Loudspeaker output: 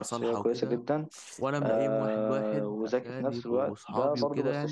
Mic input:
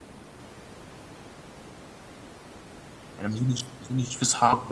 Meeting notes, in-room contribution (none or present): present